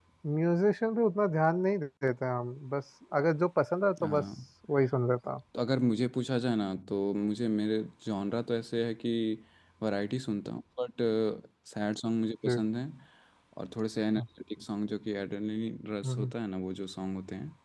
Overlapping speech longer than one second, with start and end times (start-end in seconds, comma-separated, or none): none